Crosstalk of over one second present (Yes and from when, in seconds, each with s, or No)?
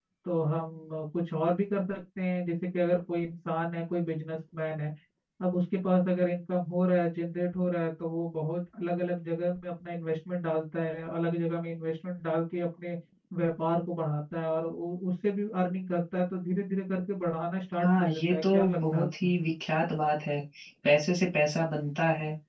Yes, from 17.8 s